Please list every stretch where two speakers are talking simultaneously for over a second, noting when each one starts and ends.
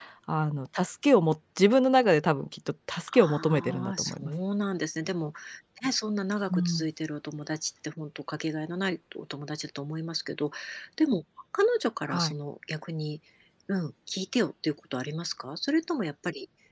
3.1-4.3

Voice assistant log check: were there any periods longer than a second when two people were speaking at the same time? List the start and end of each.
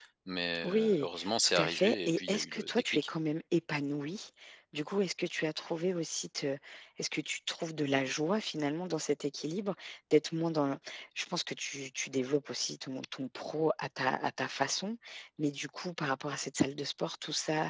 0.6-3.0

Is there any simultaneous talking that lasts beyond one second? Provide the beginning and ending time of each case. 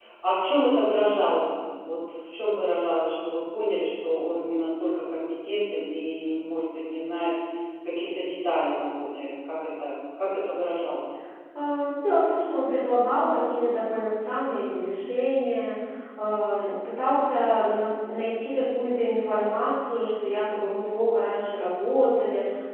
none

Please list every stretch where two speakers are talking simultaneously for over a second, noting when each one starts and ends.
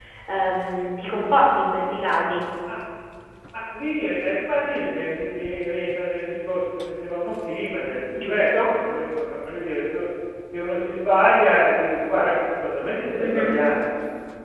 none

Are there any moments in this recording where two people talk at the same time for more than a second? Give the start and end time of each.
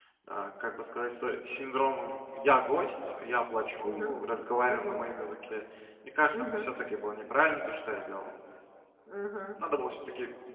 none

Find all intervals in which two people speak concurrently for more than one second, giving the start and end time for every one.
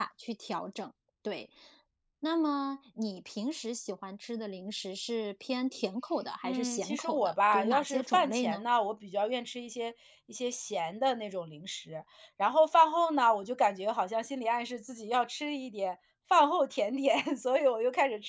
6.4-8.6

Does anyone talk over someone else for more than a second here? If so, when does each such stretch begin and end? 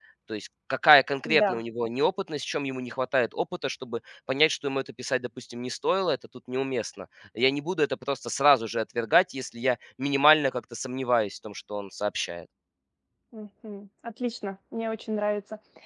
none

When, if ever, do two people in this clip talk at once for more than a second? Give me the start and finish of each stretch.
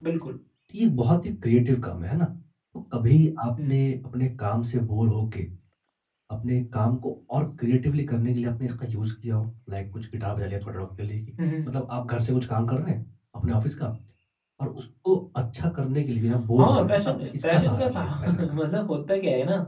16.6-18.6

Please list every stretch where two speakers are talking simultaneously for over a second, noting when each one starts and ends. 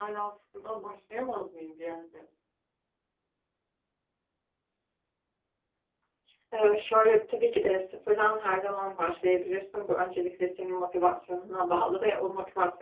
none

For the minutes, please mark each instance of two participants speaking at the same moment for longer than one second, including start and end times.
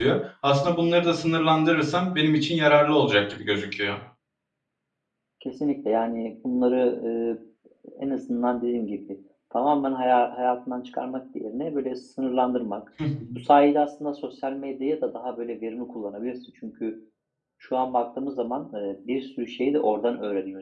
none

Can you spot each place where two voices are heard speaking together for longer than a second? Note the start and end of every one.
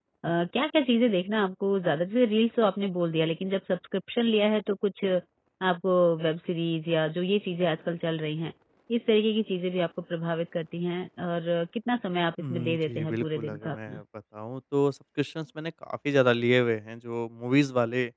12.4-14.0

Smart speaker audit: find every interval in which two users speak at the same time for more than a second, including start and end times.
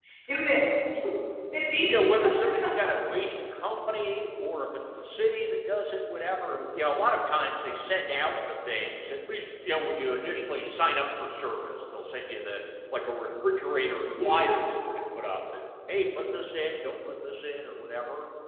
none

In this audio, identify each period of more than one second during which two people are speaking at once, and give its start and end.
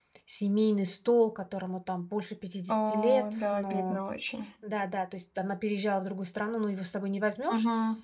2.7-4.0

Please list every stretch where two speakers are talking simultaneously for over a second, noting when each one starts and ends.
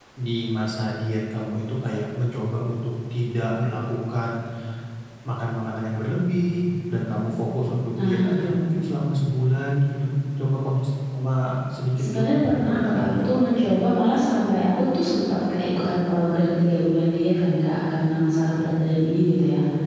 12.0-13.8

